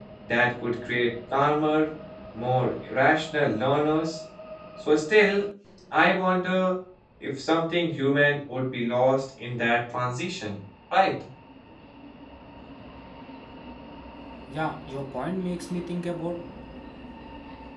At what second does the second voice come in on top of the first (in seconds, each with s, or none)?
none